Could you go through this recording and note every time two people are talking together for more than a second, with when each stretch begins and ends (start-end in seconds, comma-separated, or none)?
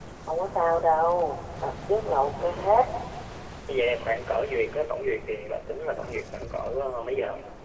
none